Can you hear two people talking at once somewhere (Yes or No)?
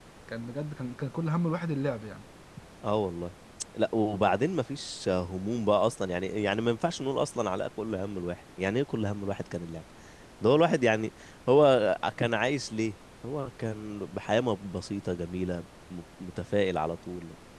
No